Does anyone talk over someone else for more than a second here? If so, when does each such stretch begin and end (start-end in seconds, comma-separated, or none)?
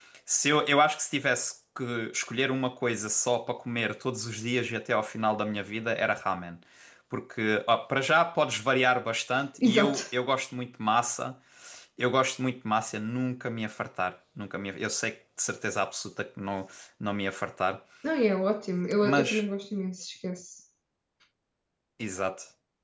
none